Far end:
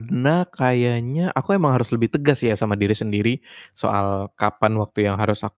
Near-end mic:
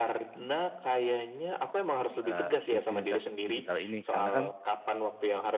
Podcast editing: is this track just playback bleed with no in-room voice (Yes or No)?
No